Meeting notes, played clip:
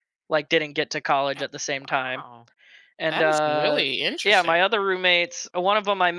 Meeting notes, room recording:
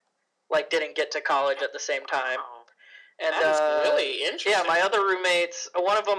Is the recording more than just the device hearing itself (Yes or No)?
No